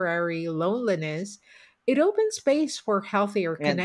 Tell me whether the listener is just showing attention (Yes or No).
No